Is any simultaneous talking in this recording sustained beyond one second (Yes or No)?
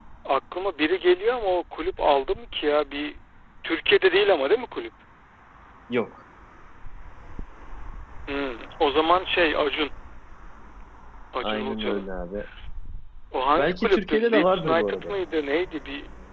Yes